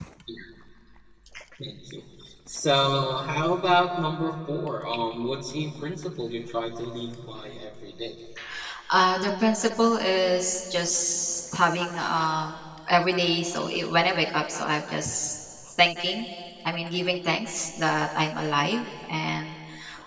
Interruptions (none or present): none